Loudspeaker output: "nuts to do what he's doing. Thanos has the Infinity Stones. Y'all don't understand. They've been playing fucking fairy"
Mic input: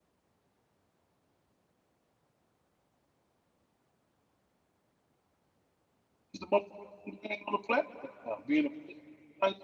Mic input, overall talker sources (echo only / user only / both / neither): user only